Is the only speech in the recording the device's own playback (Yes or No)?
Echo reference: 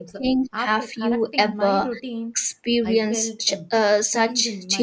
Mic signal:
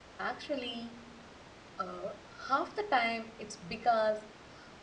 No